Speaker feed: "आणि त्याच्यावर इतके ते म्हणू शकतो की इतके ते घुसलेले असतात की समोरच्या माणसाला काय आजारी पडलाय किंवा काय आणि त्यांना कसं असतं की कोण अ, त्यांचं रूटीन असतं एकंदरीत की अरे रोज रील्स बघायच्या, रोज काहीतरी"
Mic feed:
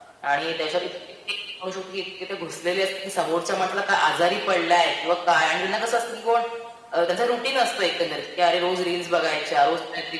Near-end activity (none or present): none